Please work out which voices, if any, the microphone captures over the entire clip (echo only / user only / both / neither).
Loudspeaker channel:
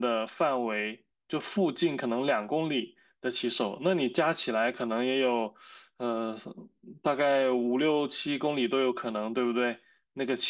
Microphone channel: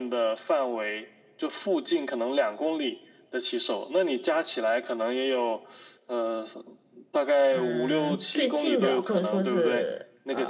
both